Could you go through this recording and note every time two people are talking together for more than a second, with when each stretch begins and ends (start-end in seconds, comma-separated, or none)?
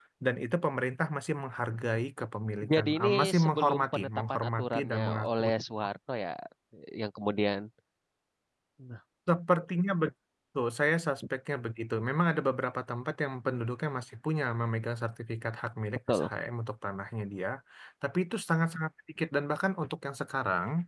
2.7-5.5